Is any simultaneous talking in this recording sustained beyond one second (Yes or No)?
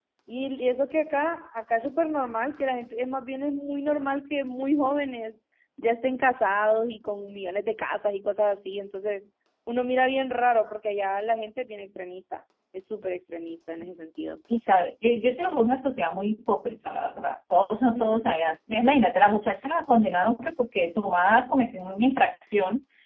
No